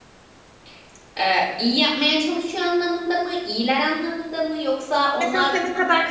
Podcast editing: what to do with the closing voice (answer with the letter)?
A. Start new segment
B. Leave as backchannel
A